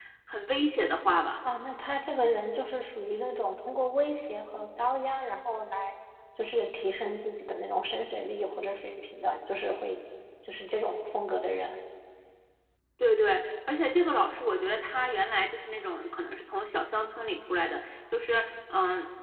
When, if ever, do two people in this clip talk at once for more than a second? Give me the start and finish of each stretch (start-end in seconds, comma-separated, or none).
none